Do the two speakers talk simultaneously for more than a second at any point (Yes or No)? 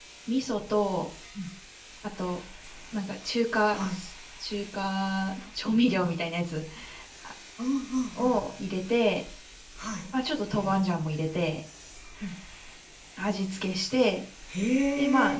No